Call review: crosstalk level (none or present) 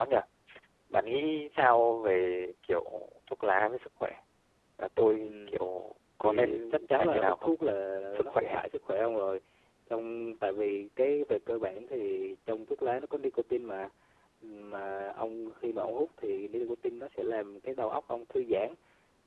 present